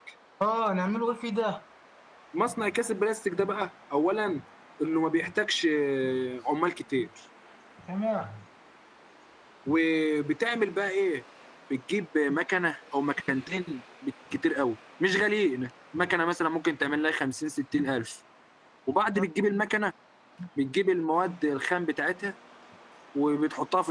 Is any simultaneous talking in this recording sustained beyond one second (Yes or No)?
No